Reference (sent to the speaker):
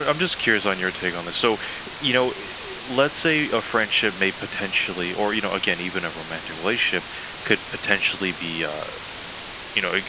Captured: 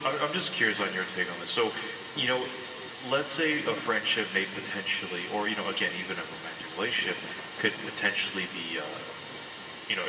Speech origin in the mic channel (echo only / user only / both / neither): echo only